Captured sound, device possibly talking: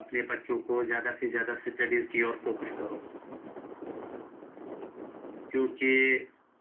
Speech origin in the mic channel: echo only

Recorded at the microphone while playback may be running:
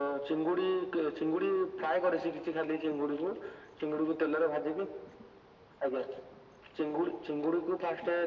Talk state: echo only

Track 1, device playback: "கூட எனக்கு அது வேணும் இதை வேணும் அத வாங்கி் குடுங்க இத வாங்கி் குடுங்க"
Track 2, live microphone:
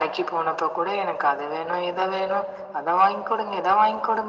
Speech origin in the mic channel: echo only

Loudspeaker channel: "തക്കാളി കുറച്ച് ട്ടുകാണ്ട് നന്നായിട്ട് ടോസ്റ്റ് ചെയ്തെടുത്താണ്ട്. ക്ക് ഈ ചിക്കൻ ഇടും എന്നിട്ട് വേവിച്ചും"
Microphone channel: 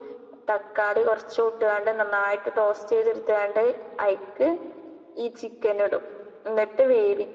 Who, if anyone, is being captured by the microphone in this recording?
echo only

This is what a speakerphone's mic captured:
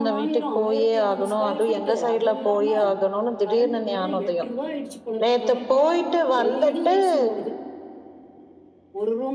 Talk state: both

